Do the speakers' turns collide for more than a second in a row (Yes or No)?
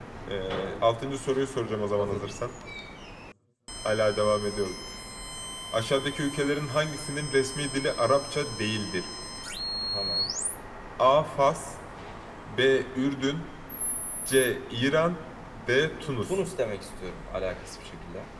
No